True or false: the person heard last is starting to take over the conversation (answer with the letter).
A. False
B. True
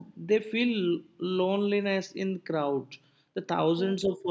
A